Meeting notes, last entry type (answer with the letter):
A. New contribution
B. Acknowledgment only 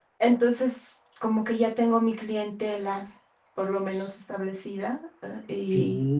A